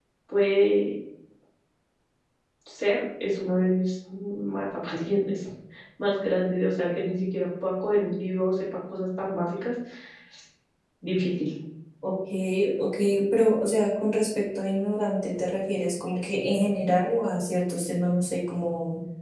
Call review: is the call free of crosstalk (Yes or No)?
Yes